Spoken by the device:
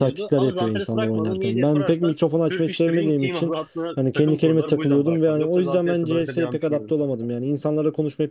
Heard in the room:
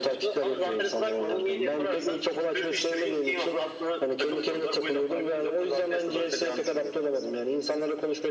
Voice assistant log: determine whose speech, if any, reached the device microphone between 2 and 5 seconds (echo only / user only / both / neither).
echo only